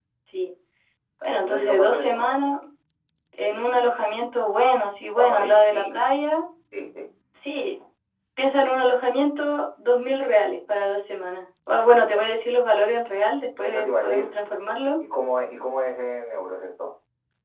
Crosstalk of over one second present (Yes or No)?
Yes